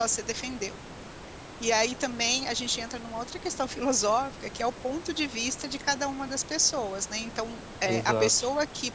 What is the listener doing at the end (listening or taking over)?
listening